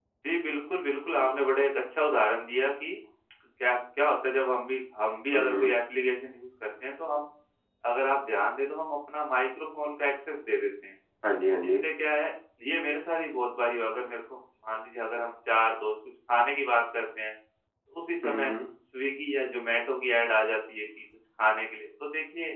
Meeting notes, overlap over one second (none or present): none